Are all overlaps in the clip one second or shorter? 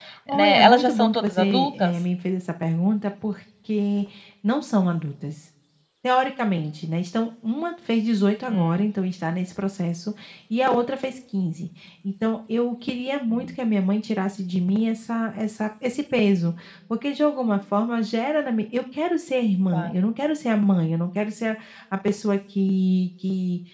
No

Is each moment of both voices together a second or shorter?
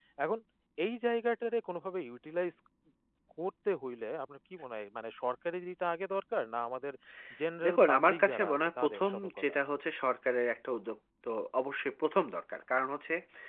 No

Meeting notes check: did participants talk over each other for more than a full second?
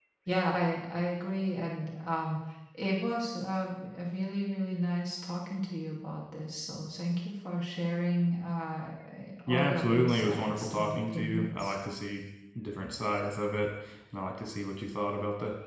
Yes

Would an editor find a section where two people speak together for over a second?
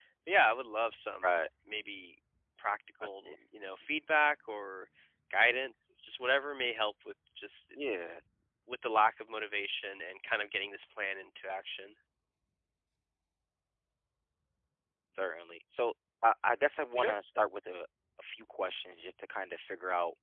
No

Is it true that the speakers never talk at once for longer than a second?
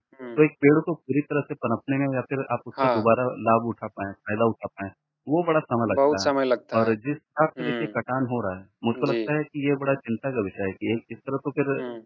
Yes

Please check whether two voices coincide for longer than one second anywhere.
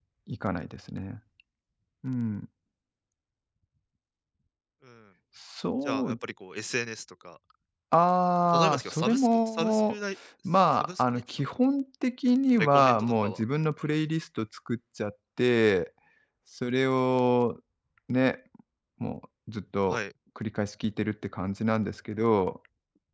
Yes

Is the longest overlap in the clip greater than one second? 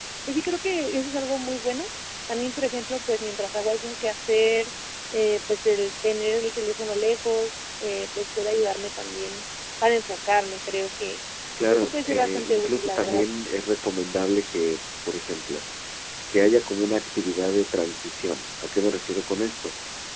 Yes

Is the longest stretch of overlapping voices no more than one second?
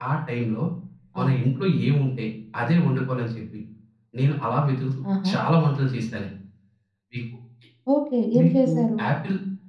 Yes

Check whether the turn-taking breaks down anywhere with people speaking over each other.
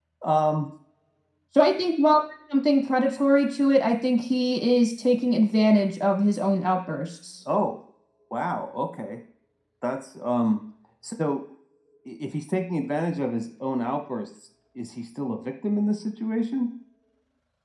No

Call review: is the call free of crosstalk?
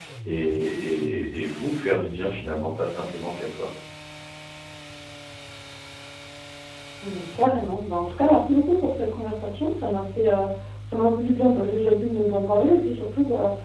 Yes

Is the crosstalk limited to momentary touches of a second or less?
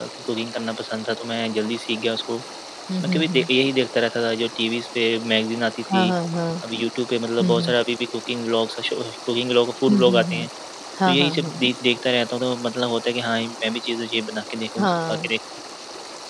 Yes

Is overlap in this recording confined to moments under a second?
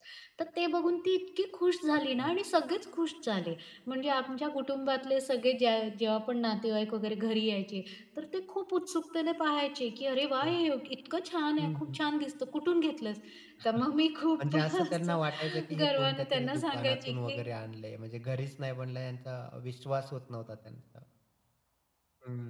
No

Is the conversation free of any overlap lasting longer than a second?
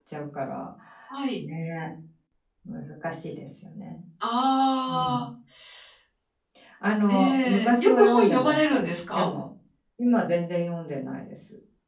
No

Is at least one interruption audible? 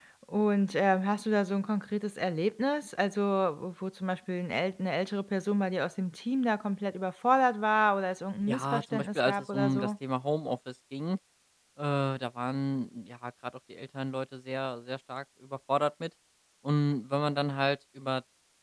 Yes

